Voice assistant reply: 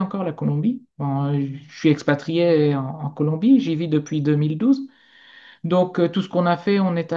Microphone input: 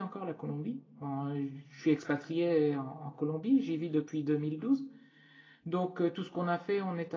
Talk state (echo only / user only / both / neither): echo only